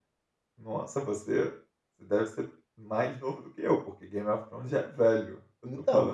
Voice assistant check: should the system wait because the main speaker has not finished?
Yes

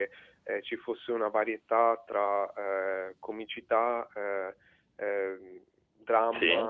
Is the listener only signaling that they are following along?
Yes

